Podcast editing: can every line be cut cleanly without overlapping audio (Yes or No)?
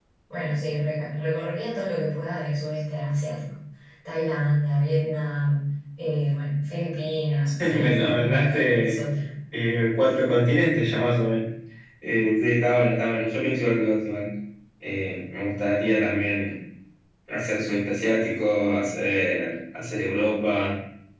No